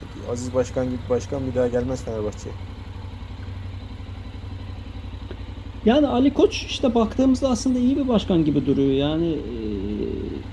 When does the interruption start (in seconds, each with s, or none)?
none